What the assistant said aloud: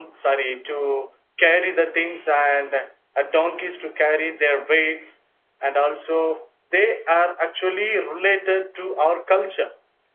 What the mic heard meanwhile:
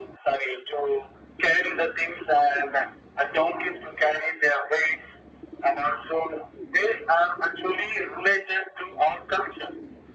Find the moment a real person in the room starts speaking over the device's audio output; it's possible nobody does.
none

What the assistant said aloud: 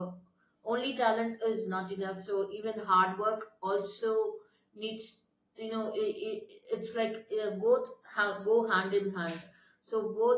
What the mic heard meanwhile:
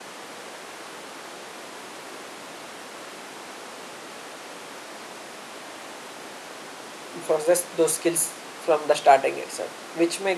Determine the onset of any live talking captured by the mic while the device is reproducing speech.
7 s

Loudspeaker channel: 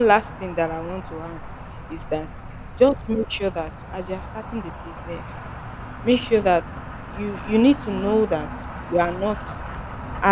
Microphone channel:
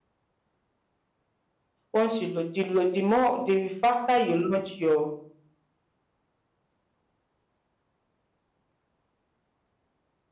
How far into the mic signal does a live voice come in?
2 s

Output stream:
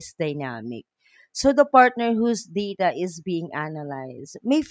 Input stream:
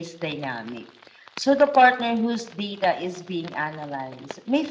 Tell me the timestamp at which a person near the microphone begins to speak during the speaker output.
none

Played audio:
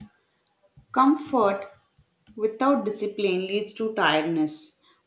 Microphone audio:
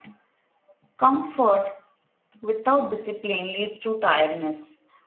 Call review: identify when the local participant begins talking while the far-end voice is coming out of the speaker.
none

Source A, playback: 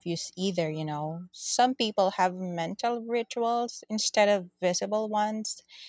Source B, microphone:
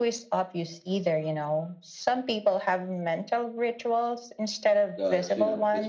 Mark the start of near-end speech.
5 s

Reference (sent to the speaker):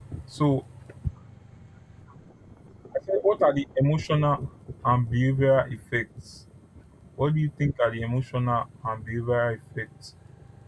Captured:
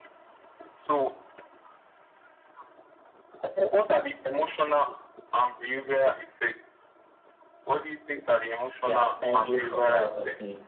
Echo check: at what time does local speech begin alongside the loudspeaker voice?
9 s

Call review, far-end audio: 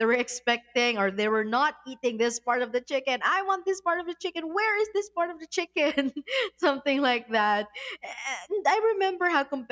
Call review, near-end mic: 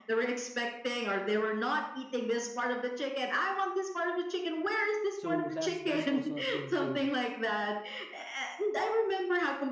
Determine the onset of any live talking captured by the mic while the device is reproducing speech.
5 s

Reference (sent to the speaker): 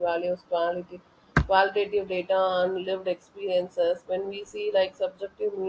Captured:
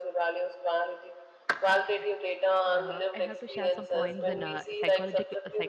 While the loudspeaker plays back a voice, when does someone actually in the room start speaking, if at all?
2 s

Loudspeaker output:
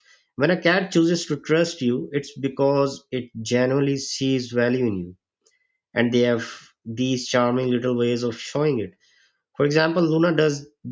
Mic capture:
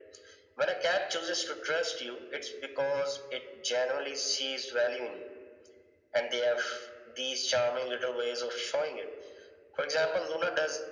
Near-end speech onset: none

